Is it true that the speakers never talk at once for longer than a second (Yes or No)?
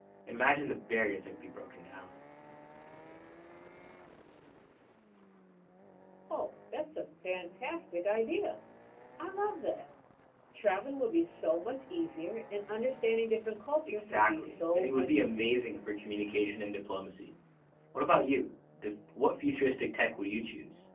No